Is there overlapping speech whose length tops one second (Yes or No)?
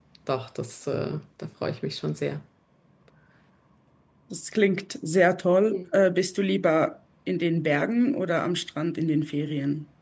No